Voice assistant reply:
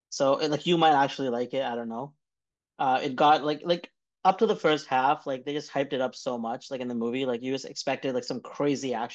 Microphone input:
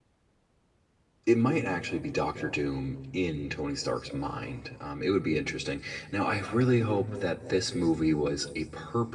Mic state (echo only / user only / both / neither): user only